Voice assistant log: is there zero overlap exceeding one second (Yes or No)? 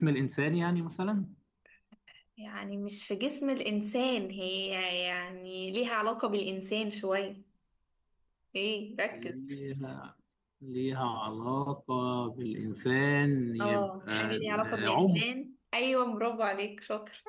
No